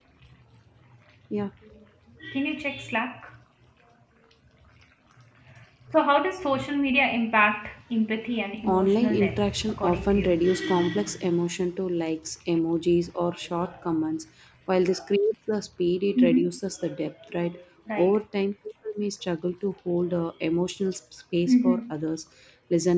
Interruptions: present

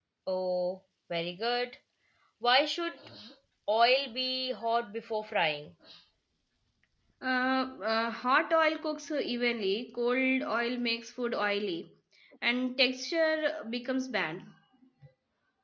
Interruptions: none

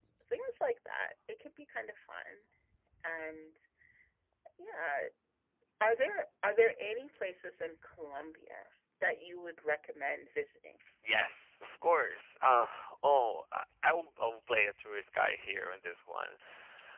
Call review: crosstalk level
none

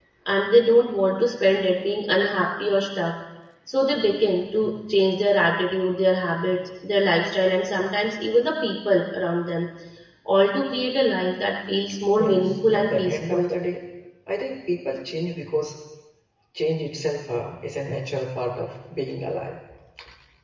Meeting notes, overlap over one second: present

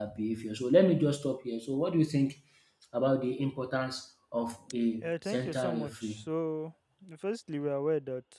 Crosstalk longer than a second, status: present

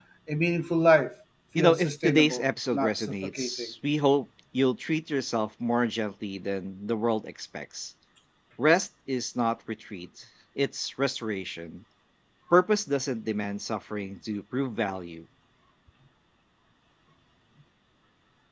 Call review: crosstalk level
present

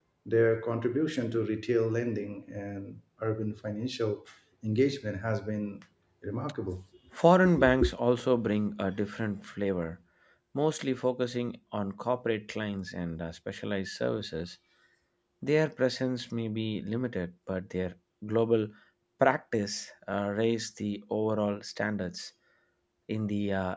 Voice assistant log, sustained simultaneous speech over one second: none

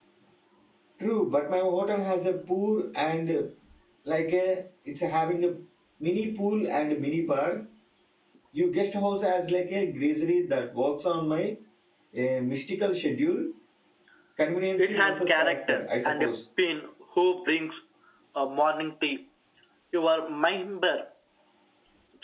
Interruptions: present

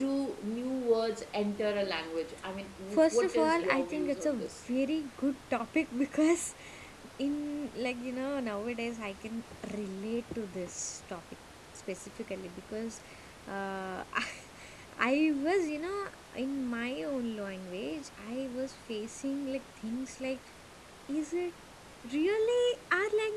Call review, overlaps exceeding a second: present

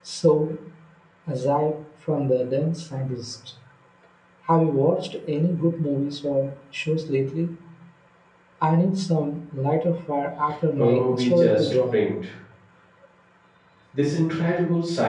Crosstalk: present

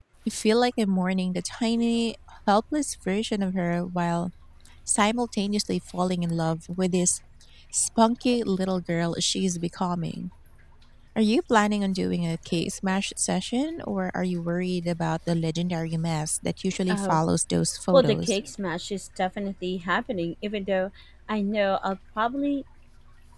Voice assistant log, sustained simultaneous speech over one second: none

